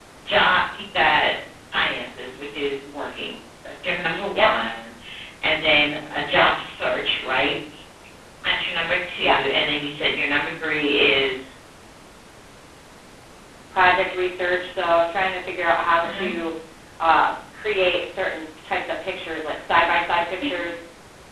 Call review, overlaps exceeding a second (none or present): none